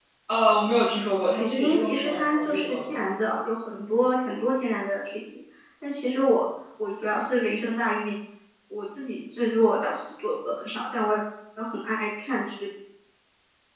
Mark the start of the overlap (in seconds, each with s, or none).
1.4 s